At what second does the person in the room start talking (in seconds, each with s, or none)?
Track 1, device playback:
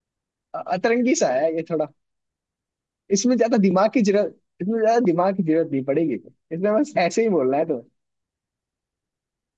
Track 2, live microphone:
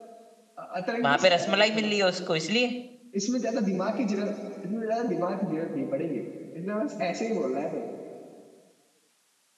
1.1 s